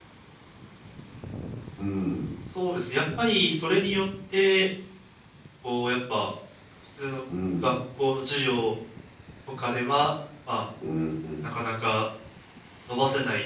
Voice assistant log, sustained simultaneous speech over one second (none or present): none